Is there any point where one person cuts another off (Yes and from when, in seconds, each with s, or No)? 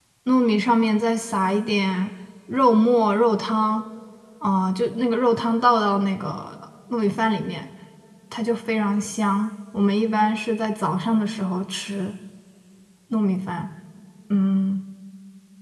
No